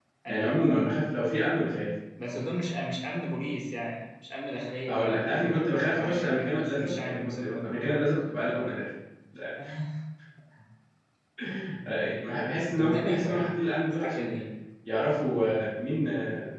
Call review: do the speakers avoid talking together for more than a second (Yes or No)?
No